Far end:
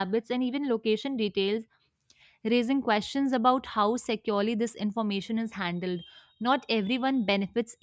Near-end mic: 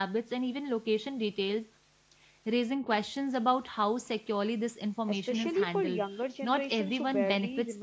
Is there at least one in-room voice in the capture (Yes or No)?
Yes